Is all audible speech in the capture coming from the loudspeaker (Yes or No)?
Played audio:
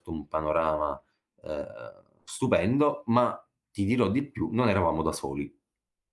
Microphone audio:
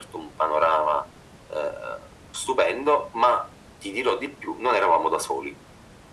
Yes